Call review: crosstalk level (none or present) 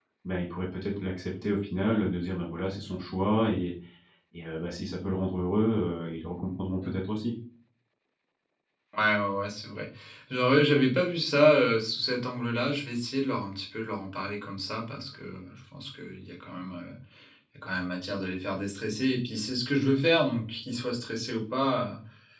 none